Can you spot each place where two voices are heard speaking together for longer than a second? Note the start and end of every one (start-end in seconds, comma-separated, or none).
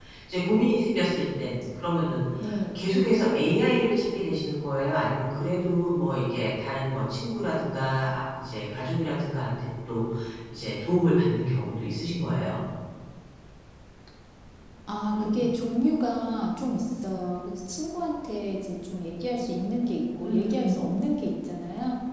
none